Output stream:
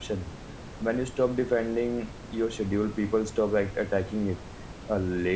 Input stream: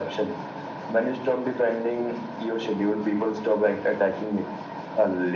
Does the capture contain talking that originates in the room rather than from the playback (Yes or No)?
No